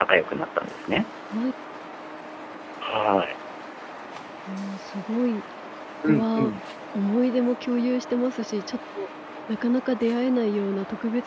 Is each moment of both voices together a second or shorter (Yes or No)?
Yes